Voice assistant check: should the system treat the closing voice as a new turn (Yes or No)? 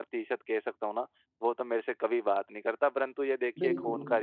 No